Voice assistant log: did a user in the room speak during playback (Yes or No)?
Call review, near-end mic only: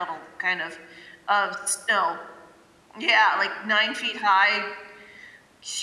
No